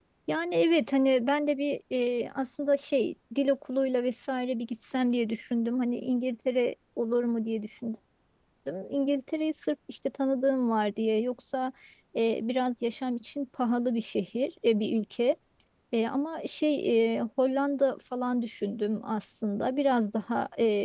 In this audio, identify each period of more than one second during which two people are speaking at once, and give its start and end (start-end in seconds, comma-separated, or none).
none